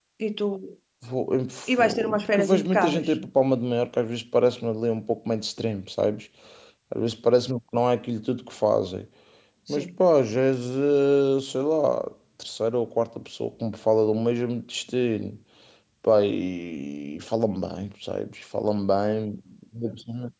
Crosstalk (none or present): present